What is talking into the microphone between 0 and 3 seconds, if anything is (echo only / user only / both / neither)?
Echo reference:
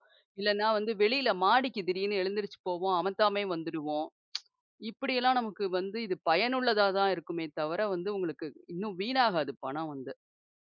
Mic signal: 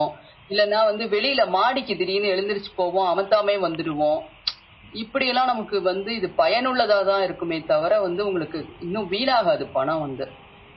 echo only